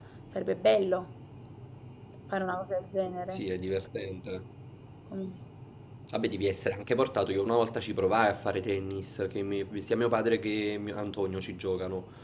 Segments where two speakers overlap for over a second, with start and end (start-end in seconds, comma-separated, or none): none